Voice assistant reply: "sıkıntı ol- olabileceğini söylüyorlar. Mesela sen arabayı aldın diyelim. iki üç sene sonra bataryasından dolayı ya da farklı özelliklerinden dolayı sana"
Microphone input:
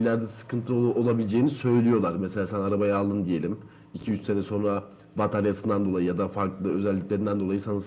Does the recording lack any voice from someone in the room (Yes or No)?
Yes